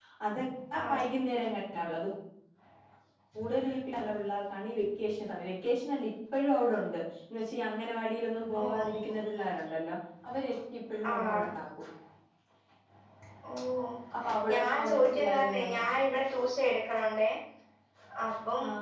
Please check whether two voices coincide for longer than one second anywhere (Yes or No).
Yes